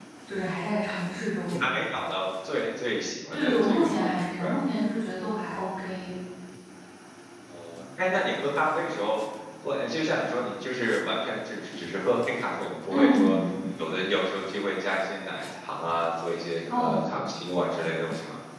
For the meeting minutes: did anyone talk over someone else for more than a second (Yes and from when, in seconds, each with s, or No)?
Yes, from 3.3 s